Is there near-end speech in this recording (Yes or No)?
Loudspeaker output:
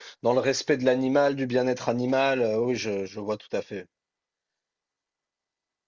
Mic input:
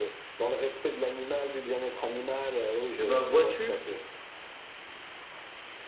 Yes